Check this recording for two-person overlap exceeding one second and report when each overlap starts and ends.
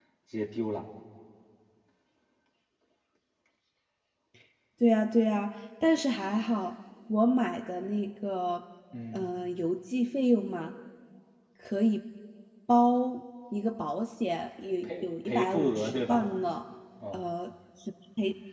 14.8-16.2

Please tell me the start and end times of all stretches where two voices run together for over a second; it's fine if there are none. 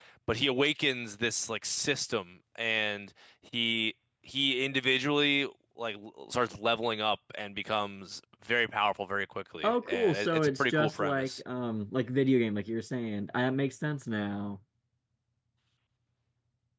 9.6-11.4

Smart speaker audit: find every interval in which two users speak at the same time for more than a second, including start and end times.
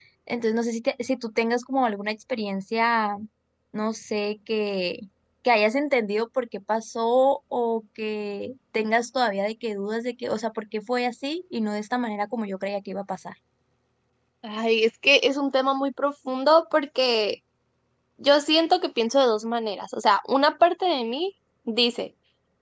none

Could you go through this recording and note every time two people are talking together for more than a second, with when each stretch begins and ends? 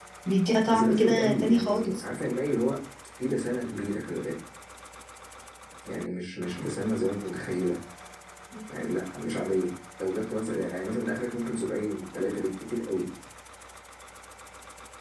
0.7-2.0

